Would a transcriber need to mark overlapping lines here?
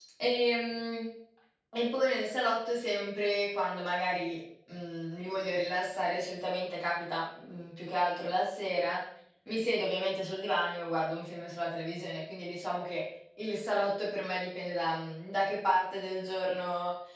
No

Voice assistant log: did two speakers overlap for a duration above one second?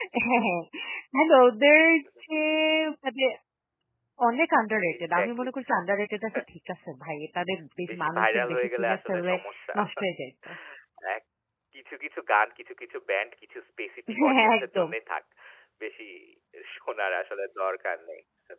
Yes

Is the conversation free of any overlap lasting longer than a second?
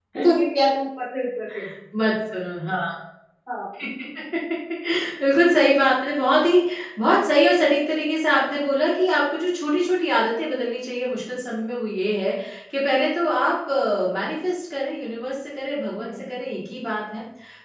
Yes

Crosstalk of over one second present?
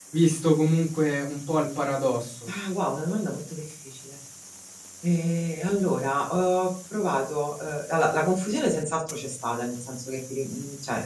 No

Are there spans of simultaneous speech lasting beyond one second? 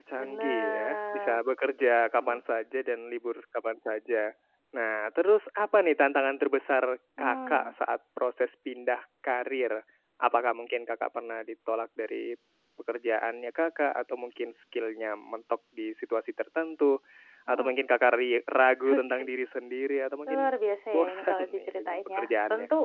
Yes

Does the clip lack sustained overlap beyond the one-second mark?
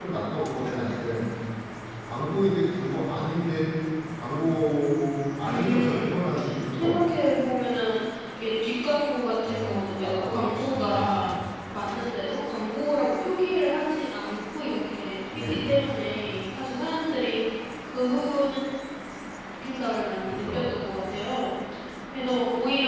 No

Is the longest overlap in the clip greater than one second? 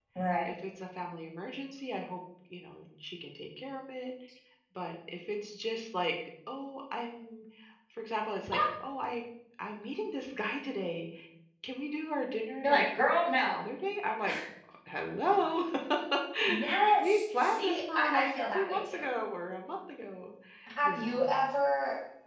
Yes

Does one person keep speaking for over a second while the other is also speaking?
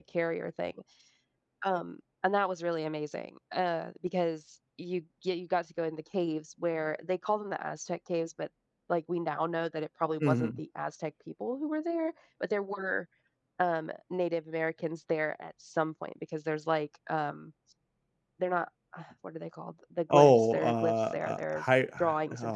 Yes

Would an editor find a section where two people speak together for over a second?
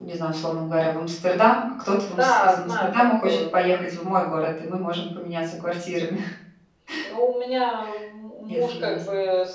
Yes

